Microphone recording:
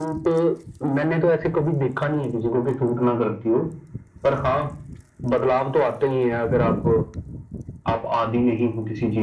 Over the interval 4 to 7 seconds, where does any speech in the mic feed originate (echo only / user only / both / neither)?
echo only